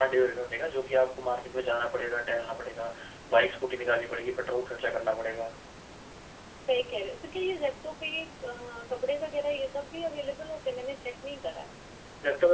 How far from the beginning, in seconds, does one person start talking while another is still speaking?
none

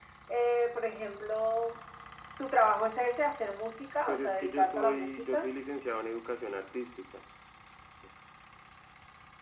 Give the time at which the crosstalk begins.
4.1 s

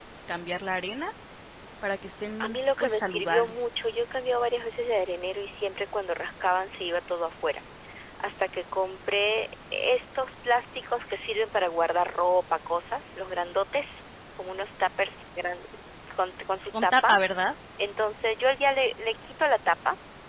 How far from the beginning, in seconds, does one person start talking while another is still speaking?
2.4 s

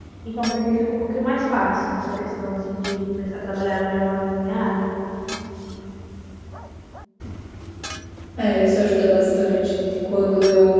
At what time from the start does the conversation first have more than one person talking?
none

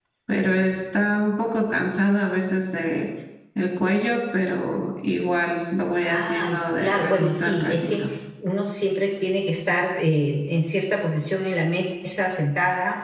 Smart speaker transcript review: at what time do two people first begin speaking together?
6.1 s

